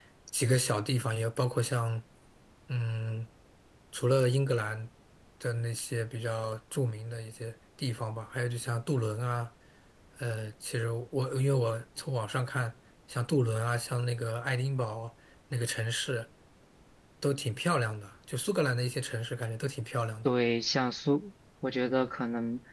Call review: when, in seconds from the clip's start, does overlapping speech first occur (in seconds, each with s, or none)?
none